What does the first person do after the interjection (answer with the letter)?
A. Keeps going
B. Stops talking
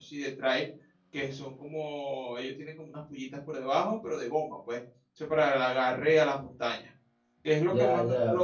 A